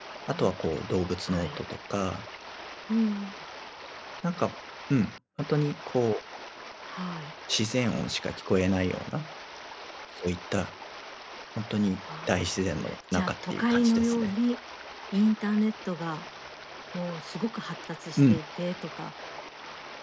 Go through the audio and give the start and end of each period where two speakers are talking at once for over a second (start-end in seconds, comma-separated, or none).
13.1-14.3